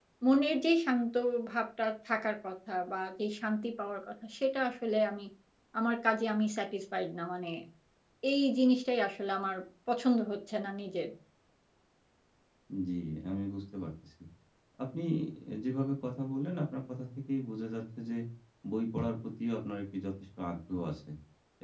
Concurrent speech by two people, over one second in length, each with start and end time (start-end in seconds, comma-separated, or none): none